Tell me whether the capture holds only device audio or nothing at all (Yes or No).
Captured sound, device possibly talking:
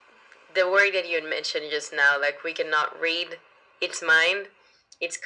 Yes